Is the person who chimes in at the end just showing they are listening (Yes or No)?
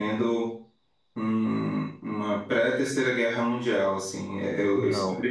Yes